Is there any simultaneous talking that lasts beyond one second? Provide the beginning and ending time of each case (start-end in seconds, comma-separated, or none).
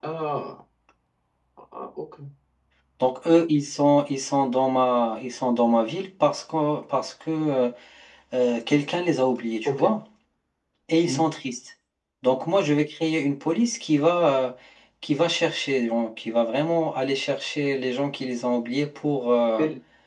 none